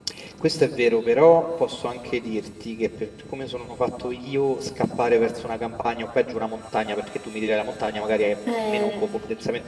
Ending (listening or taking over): listening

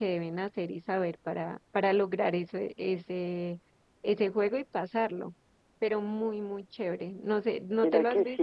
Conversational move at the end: taking over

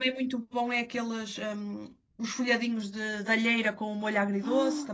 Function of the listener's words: taking over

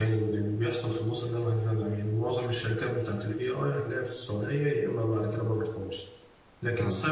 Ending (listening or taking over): listening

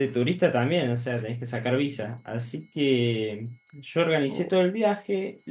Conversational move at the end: listening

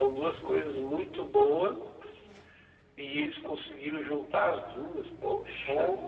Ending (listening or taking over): taking over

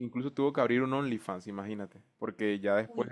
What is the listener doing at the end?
listening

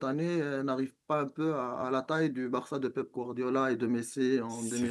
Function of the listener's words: taking over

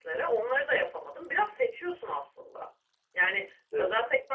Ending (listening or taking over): listening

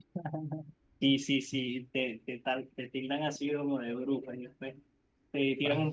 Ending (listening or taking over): listening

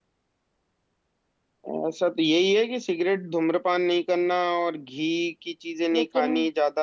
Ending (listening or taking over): listening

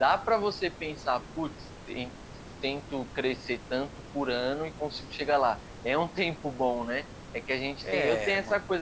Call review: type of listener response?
listening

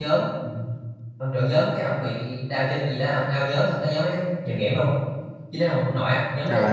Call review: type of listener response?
listening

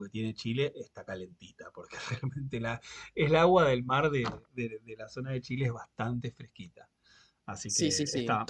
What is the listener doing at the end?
taking over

